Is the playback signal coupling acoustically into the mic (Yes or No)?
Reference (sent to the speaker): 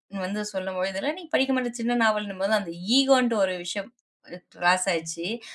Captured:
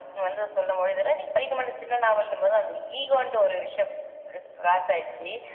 Yes